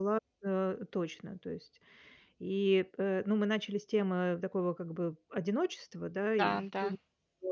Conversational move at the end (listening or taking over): listening